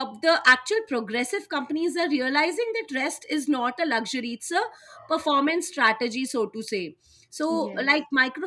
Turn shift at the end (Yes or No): No